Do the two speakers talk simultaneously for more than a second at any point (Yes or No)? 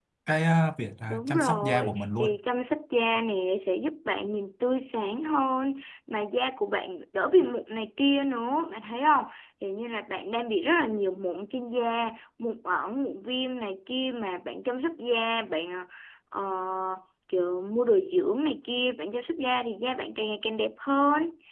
Yes